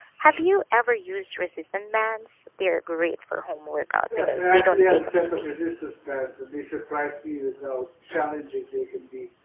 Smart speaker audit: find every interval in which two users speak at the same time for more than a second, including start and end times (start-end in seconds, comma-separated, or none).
4.1-5.8